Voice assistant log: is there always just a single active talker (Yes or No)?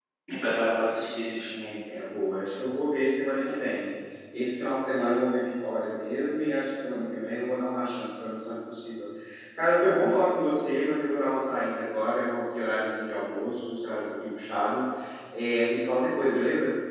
Yes